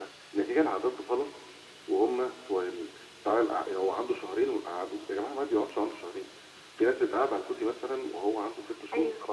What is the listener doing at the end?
listening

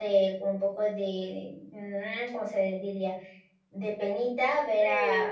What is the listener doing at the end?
listening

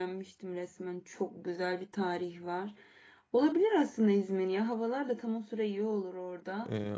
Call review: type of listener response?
taking over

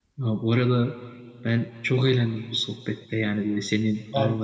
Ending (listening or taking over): listening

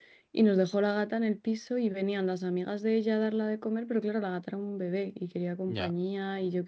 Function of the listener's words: listening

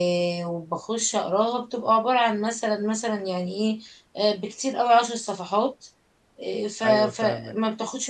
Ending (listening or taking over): listening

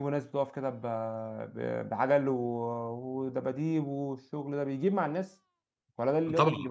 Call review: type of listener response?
taking over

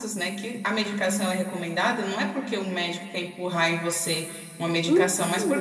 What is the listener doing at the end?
listening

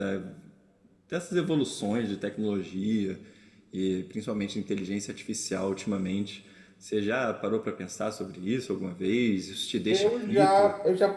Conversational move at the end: taking over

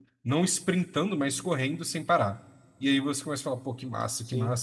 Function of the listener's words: listening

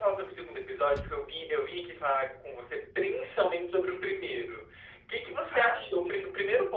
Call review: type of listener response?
listening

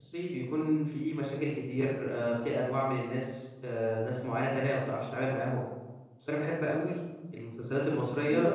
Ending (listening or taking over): listening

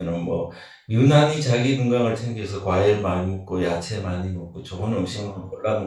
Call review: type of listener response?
listening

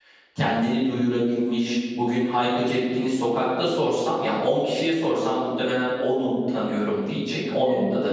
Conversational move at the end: taking over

